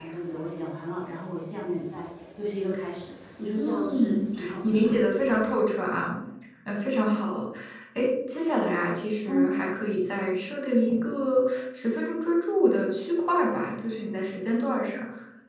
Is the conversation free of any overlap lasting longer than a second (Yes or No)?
No